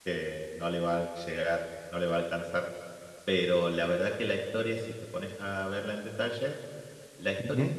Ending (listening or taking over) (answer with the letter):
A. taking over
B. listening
B